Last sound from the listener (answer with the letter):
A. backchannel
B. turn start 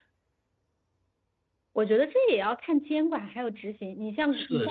B